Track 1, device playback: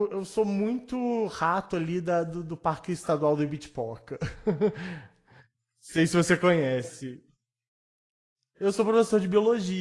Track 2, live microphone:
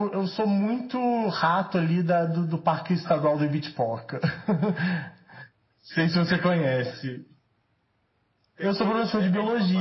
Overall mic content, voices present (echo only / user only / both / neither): both